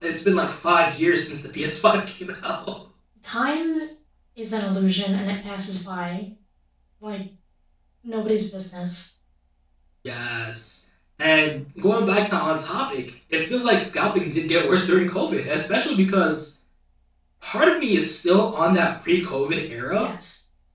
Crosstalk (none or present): none